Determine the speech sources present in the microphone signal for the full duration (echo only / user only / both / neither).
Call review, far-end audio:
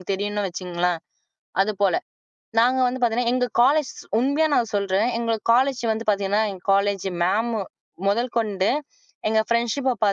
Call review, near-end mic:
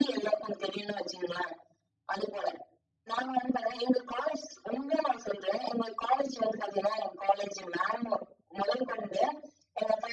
echo only